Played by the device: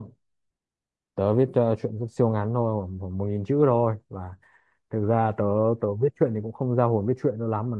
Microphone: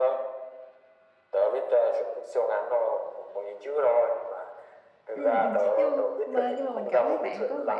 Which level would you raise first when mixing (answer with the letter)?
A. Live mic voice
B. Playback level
A